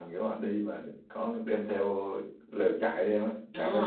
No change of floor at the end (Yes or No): No